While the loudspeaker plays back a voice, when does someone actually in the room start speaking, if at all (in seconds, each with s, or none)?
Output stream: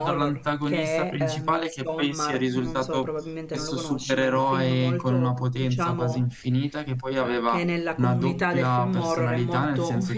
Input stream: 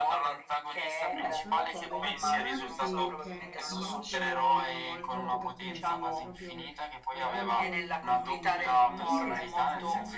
1.1 s